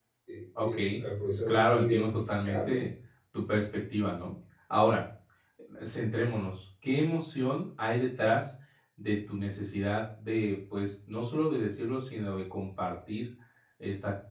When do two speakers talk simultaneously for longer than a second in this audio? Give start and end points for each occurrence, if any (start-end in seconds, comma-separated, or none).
1.5-2.8